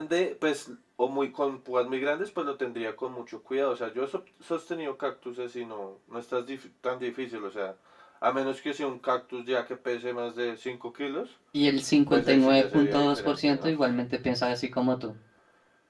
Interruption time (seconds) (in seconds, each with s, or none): 12.1 s